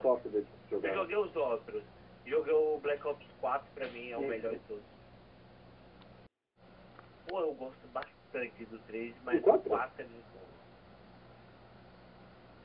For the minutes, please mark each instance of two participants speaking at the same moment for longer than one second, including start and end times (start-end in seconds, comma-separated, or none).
none